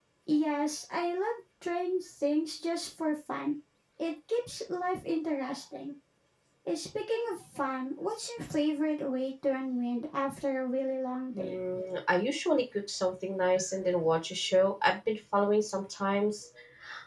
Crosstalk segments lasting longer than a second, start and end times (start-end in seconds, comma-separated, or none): none